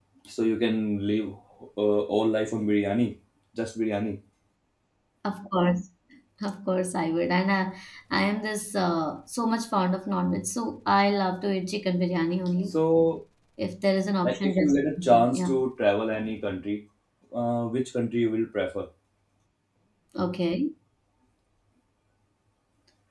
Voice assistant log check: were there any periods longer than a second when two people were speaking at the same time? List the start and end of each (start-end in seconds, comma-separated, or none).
14.2-15.6